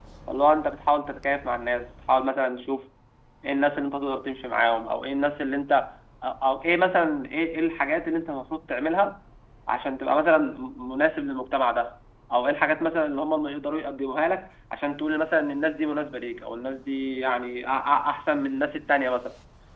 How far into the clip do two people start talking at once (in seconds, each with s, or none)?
none